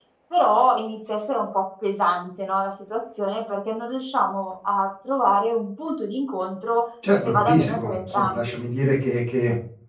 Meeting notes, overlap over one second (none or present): present